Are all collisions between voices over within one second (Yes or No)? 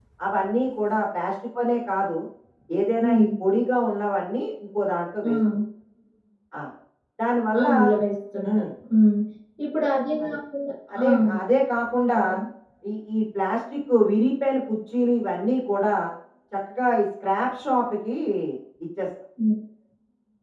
Yes